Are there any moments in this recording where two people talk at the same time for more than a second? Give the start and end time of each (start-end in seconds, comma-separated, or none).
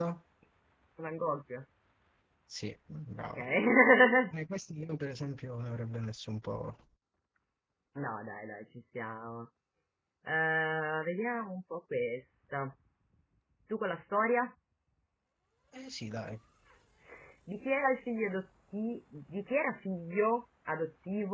none